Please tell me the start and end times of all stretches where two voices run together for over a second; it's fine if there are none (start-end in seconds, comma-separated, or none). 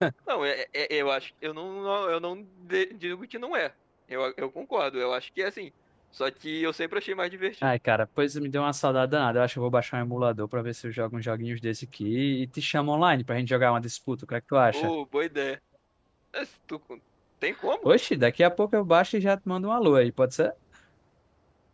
none